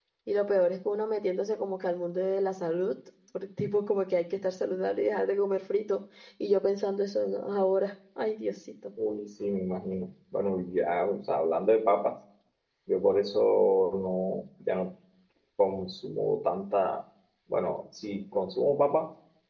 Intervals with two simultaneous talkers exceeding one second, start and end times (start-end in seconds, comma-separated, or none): none